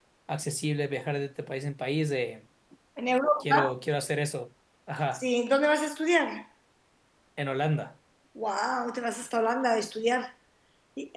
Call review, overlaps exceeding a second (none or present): none